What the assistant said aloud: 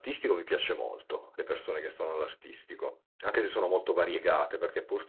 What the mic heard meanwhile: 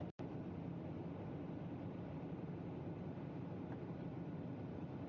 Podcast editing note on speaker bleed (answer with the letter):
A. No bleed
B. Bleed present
A